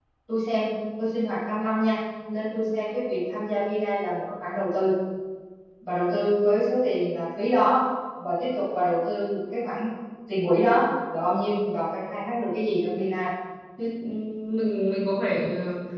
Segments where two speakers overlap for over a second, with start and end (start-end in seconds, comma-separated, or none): none